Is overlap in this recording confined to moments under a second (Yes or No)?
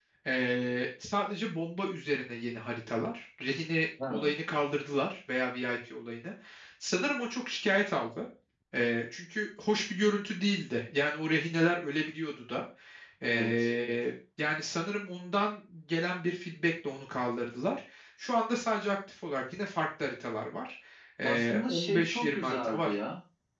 No